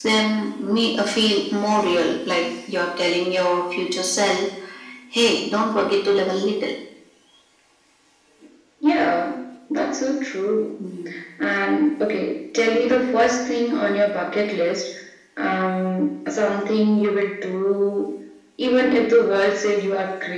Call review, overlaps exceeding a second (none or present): none